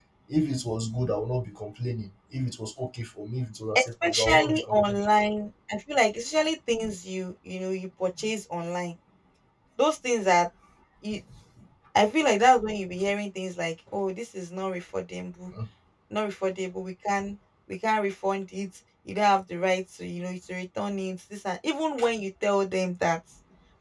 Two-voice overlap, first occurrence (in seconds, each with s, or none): 3.8 s